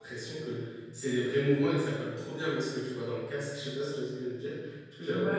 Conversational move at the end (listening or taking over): taking over